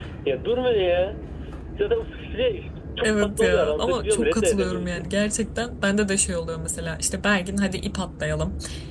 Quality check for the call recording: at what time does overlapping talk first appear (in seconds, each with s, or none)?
3.0 s